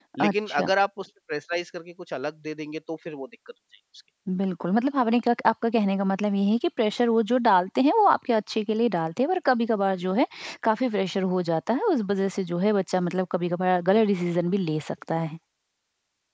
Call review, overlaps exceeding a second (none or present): none